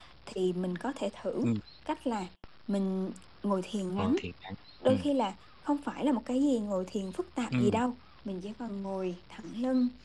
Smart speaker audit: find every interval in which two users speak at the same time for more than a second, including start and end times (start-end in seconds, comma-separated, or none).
none